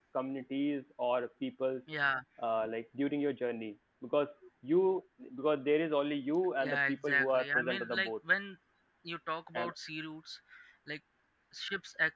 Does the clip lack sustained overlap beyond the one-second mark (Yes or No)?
No